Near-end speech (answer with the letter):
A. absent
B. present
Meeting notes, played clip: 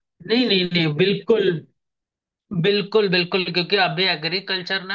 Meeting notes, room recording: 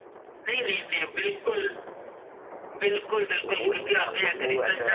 B